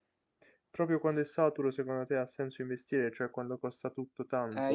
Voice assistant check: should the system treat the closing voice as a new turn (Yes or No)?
Yes